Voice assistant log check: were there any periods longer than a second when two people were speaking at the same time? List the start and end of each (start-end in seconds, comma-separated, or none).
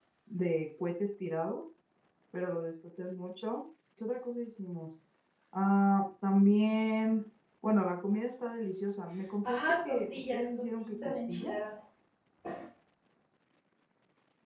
9.4-11.5